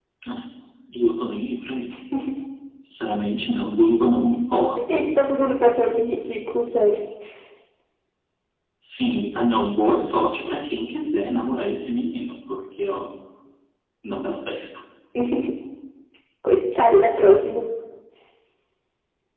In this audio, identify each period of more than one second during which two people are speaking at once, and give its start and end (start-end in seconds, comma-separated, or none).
none